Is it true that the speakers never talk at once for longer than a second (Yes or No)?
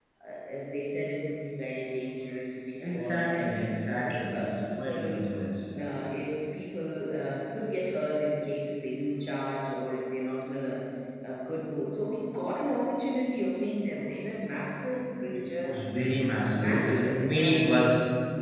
No